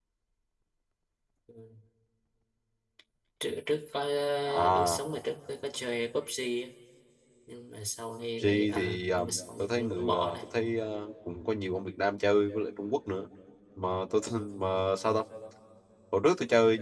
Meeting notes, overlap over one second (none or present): present